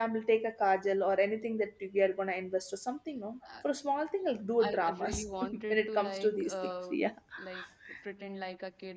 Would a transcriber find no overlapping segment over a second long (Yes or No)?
No